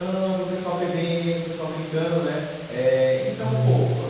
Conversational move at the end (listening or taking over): listening